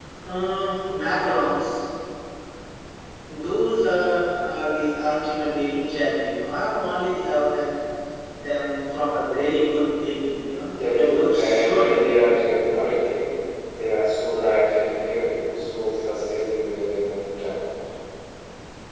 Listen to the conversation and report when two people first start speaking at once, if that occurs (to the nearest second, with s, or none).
11 s